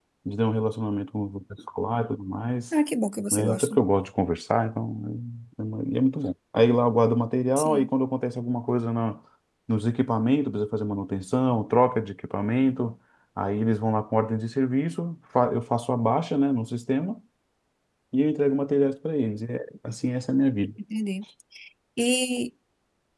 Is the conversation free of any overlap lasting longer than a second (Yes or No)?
Yes